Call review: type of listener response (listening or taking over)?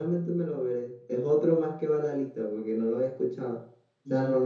listening